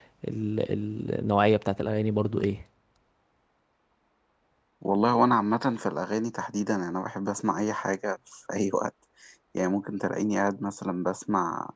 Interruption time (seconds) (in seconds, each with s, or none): none